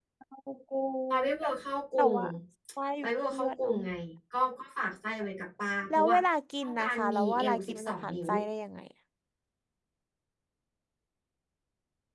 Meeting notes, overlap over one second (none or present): present